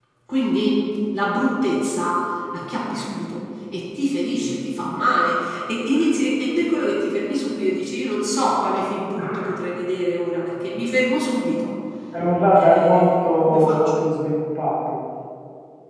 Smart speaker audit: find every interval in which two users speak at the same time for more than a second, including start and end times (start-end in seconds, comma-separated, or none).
12.6-13.9